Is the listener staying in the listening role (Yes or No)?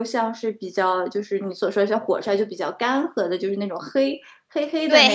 No